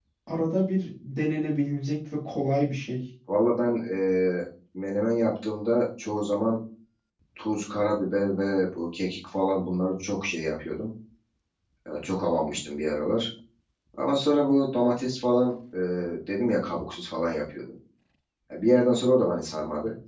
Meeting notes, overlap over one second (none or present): none